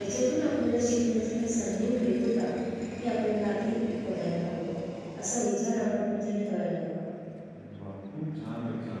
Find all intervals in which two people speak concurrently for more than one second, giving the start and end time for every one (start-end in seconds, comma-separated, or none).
none